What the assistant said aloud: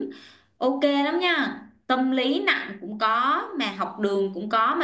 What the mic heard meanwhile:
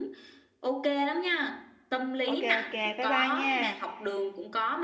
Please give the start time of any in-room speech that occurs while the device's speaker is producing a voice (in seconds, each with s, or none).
2.3 s